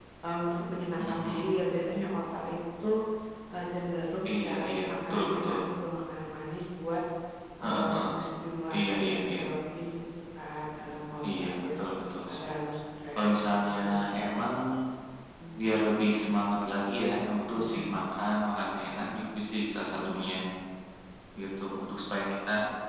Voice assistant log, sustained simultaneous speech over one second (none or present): present